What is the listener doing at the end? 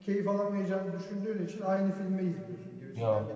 listening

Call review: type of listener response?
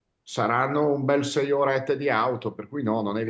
taking over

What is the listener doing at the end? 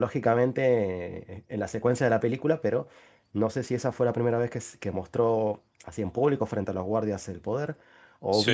listening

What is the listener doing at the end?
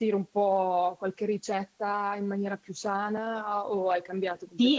taking over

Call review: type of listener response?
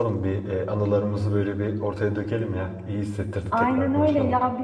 taking over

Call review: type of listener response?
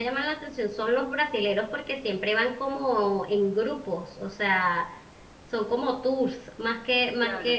listening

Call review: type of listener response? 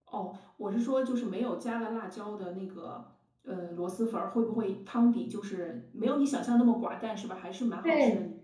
taking over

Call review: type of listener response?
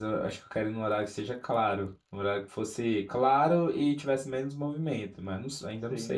taking over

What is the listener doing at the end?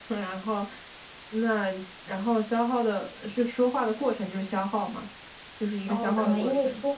taking over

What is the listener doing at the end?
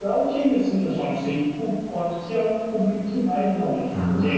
taking over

